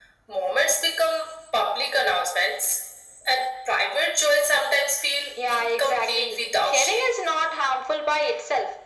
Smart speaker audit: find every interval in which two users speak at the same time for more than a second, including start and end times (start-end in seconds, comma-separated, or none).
5.5-7.1